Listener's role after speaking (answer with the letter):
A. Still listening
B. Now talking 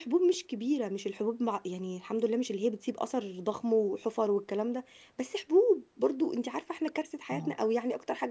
A